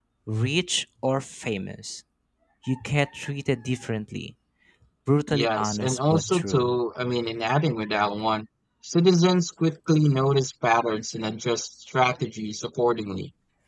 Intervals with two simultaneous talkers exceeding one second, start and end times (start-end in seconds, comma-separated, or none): 5.3-6.7